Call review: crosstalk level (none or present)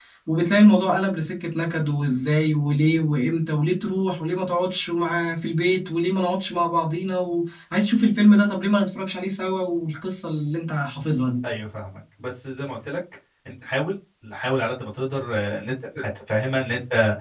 none